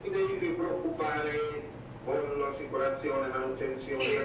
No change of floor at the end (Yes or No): Yes